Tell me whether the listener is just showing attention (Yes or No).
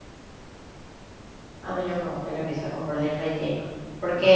Yes